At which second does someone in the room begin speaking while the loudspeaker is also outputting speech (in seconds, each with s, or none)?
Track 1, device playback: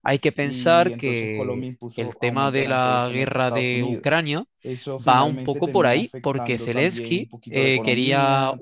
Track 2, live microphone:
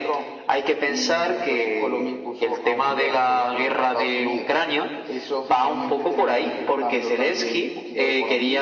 none